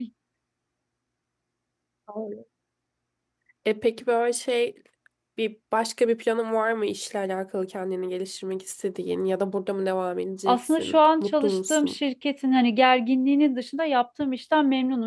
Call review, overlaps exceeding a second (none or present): present